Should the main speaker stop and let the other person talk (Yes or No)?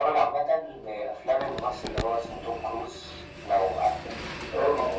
No